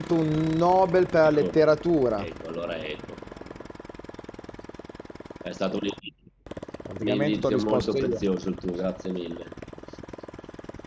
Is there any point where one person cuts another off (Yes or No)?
Yes